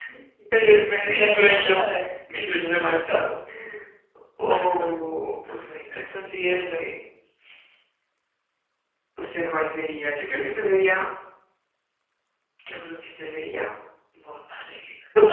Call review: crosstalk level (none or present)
present